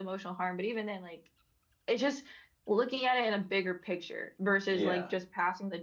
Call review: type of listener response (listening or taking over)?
listening